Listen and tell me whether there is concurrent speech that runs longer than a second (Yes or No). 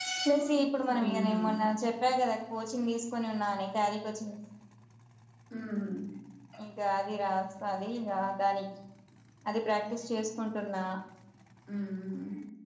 Yes